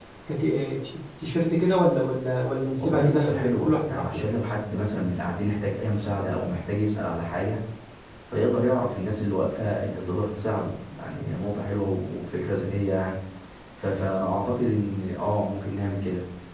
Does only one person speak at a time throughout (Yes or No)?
No